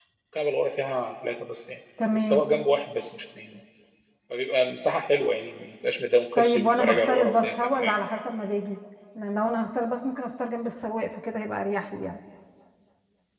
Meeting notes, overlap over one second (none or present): present